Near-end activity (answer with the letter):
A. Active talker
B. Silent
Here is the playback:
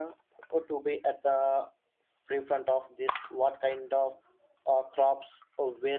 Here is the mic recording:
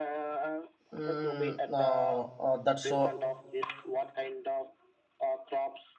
A